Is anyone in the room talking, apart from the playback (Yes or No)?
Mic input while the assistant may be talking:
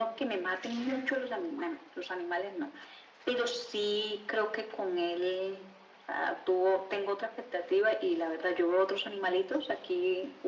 No